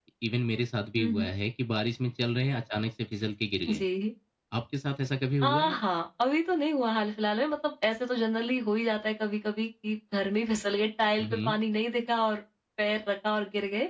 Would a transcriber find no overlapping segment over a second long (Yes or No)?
Yes